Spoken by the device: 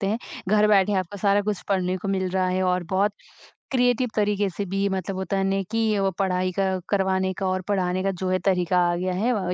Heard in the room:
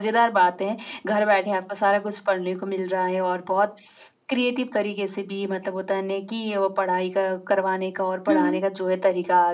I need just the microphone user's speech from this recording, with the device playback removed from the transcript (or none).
हुँ, हुँ।